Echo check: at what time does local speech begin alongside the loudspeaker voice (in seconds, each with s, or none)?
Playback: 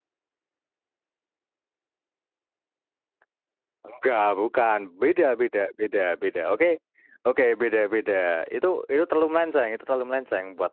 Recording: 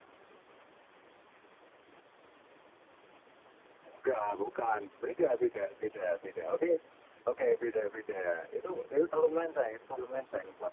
none